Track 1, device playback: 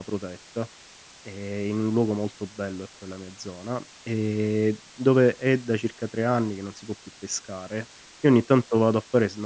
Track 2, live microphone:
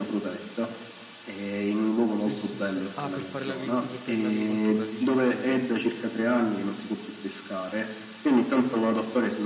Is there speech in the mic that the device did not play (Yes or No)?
Yes